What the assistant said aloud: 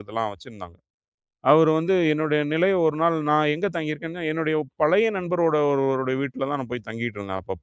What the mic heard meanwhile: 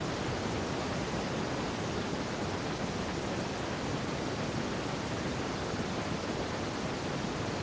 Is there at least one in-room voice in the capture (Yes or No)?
No